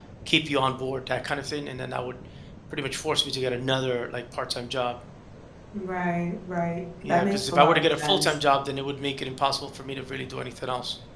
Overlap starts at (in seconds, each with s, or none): 7.0 s